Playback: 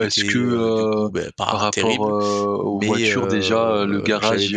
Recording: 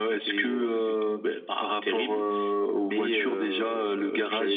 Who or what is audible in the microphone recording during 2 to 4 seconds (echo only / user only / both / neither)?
echo only